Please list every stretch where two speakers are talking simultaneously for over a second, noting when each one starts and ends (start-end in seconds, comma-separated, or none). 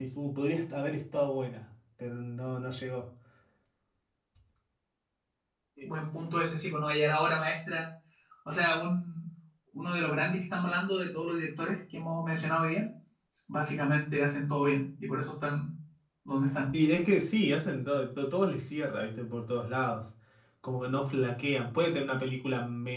none